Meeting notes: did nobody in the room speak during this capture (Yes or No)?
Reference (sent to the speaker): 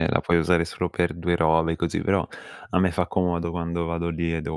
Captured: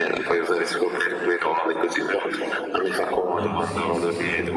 No